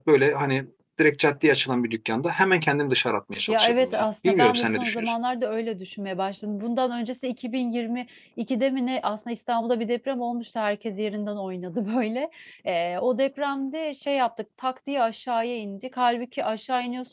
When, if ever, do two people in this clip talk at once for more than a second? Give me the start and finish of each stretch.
3.5-5.1

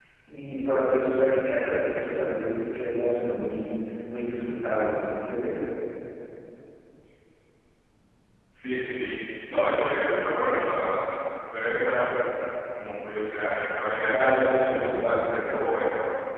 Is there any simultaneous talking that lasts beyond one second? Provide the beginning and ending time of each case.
14.1-15.5

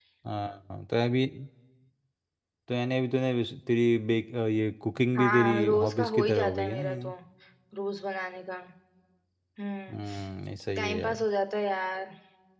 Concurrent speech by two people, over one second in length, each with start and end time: 5.2-7.1

